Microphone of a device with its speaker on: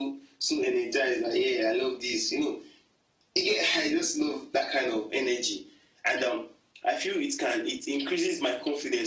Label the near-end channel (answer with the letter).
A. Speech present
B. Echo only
B